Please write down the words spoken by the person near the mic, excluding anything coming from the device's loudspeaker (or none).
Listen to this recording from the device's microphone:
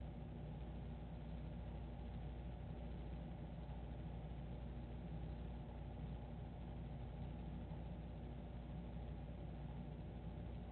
none